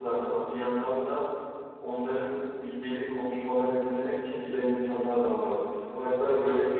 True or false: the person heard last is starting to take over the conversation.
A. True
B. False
B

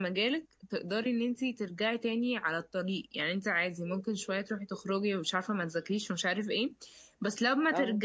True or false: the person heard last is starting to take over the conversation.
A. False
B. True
A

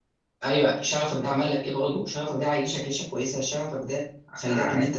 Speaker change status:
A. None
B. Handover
A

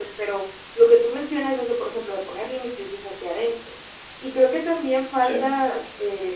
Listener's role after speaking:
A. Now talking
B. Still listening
B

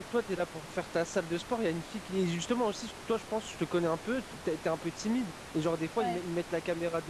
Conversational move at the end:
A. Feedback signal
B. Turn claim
A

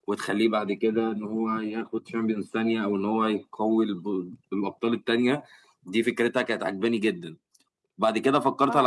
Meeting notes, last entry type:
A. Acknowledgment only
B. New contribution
A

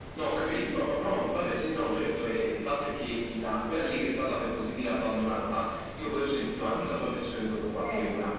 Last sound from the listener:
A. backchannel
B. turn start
A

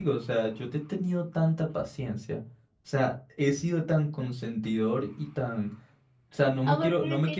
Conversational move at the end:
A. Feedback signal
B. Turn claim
B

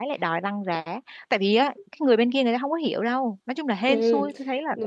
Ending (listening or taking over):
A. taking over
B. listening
A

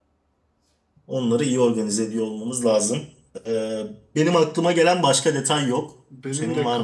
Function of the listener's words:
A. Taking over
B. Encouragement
A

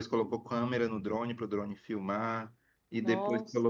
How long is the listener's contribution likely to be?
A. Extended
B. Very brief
B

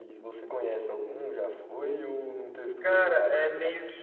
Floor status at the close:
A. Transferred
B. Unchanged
A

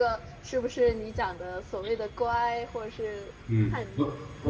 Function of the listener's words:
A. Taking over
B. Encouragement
A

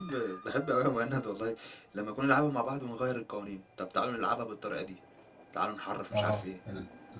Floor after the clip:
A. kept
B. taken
B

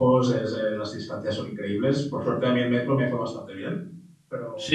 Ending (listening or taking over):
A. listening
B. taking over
B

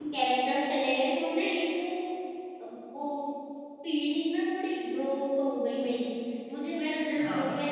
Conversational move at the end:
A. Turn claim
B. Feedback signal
B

